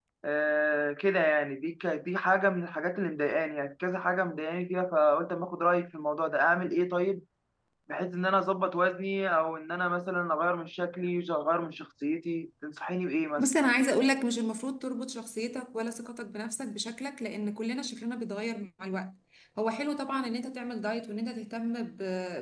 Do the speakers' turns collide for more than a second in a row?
No

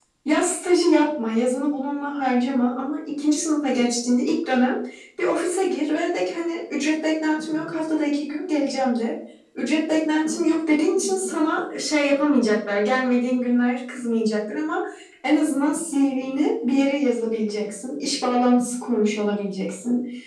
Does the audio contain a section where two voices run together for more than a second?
No

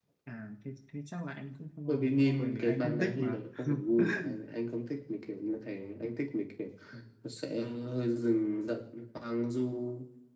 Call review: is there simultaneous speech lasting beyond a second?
Yes, from 1.9 s

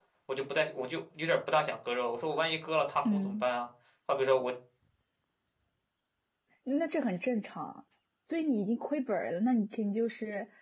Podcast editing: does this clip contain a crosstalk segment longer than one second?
No

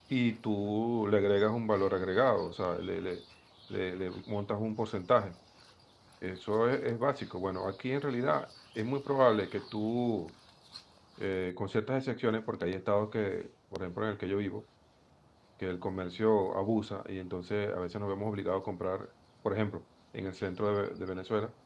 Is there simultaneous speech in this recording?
No

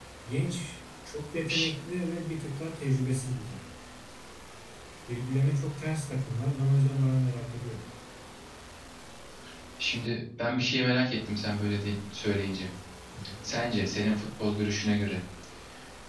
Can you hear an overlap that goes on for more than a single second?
No

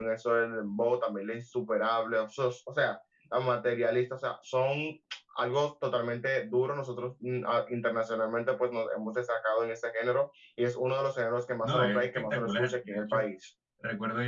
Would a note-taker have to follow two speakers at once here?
Yes, from 11.6 s

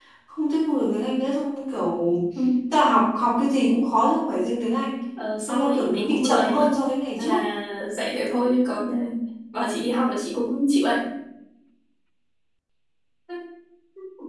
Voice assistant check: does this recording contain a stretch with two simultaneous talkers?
Yes, from 5.5 s

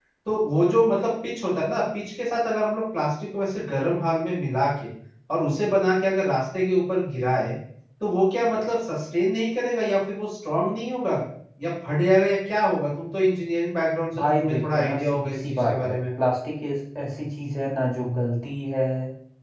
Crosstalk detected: Yes, from 14.1 s

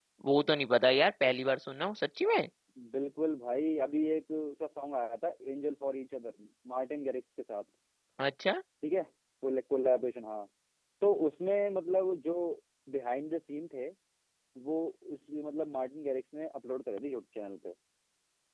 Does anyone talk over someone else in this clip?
No

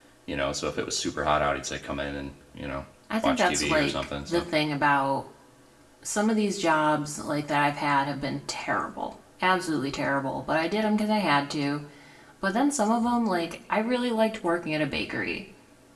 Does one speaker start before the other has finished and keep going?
Yes, from 3.2 s

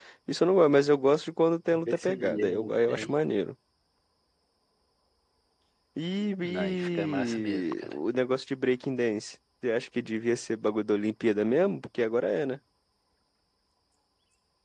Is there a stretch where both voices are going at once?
Yes, from 1.9 s

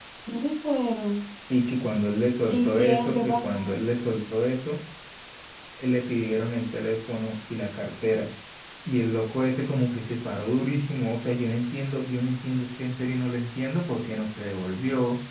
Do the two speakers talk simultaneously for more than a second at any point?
Yes, from 2.5 s

